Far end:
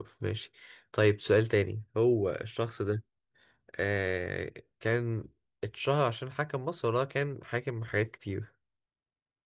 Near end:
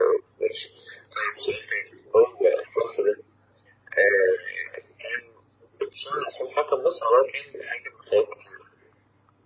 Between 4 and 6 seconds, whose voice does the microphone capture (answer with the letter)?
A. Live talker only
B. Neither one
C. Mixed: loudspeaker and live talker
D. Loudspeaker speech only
D